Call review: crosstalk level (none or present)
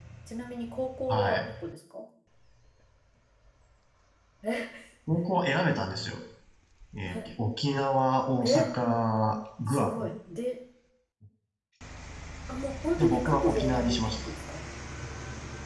present